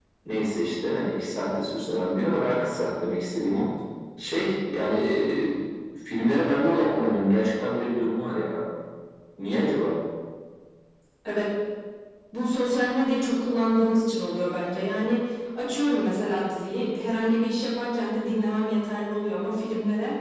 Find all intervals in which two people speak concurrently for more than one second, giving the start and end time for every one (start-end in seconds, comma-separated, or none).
none